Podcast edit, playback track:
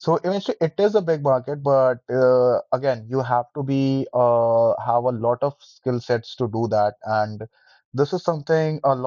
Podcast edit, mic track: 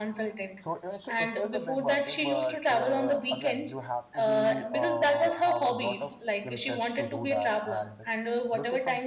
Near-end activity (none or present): present